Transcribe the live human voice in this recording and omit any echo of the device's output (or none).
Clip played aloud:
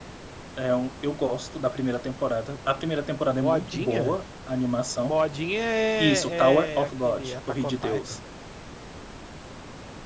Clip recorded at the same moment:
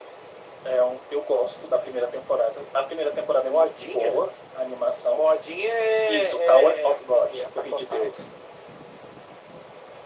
none